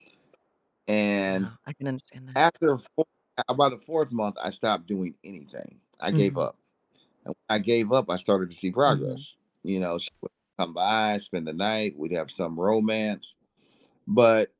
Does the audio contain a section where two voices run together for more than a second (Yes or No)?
No